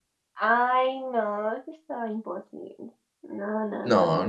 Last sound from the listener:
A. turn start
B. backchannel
A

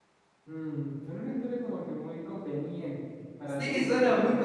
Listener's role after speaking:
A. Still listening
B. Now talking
B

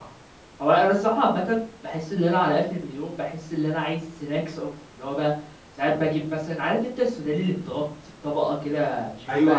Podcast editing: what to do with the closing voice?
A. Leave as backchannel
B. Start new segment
B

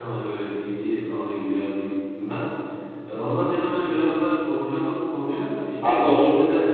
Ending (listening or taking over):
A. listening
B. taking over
A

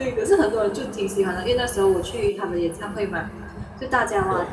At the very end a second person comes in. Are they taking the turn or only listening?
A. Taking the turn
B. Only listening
B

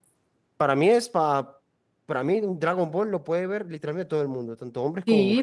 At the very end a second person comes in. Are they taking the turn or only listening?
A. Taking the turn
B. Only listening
A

